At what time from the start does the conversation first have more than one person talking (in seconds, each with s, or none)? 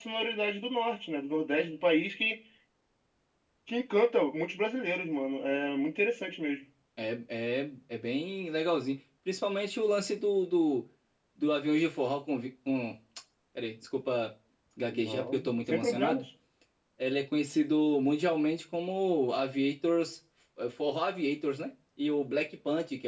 14.9 s